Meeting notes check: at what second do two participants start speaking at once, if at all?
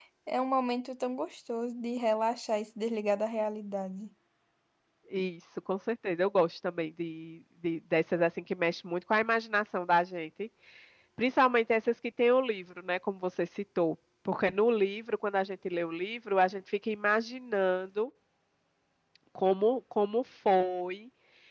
none

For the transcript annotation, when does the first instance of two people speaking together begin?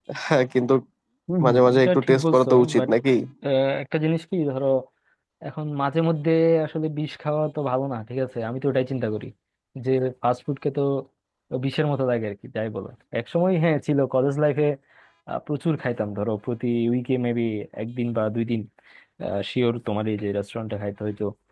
1.4 s

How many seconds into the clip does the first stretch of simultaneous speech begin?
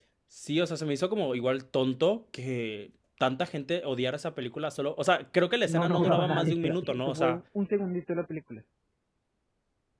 5.7 s

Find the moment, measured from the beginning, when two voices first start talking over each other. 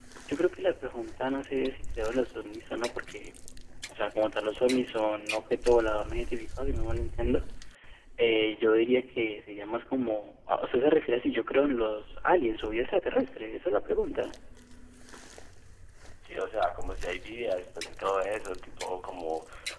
none

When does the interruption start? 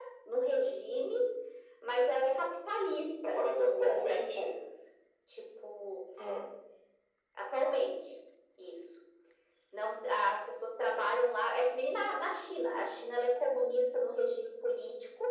3.2 s

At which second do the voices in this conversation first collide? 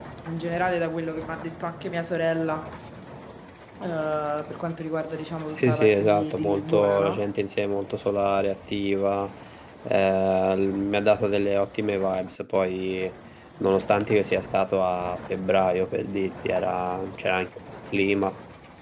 5.6 s

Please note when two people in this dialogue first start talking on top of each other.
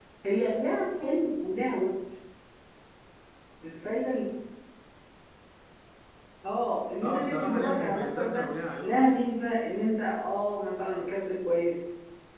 7.0 s

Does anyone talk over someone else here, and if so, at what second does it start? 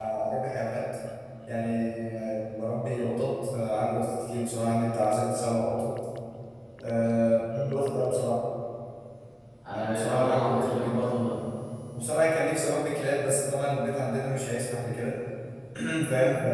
9.7 s

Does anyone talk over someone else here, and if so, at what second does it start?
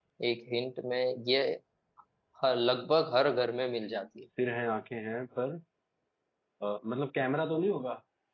none

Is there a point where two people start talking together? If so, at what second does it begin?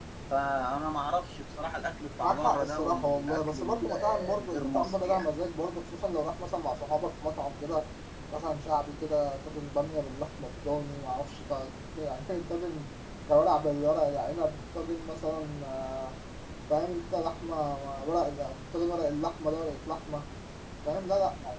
2.2 s

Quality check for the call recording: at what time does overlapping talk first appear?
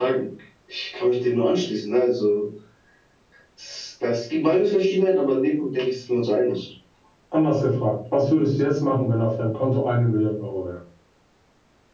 none

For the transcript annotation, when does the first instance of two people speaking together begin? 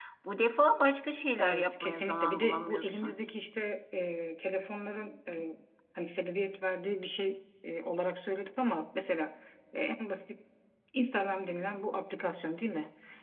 1.4 s

